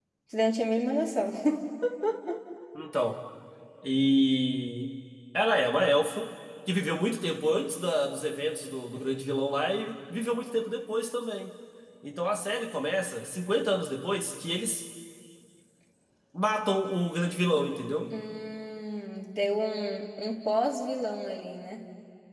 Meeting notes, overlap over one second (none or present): none